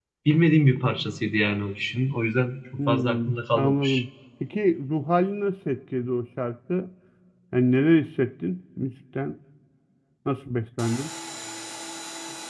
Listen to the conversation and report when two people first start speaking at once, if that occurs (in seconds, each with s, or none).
2.8 s